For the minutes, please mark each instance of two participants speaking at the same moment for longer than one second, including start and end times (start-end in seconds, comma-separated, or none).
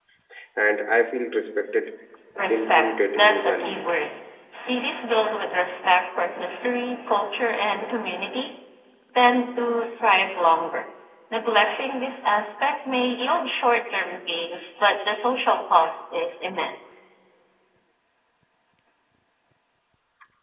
2.5-3.9